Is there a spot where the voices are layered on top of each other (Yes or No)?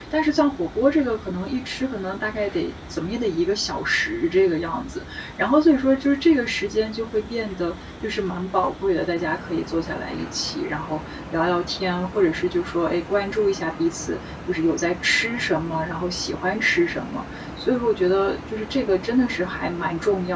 No